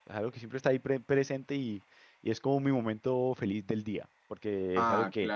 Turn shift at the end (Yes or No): No